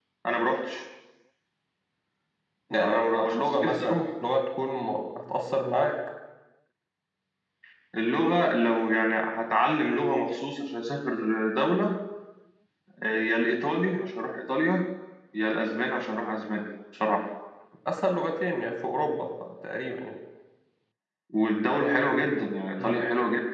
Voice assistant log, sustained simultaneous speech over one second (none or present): present